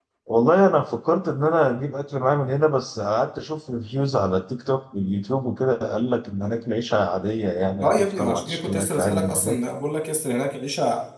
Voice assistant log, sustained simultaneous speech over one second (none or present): present